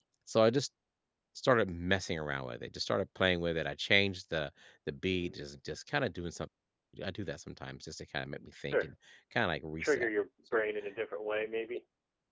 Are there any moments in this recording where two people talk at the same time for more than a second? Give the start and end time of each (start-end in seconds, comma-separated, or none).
none